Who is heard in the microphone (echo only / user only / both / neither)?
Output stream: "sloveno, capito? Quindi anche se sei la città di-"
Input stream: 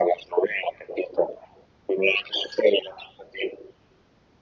echo only